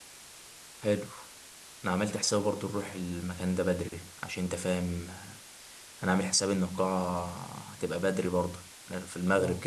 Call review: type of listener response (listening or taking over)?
listening